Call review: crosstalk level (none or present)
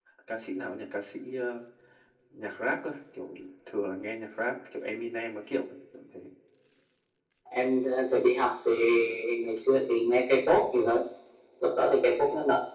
none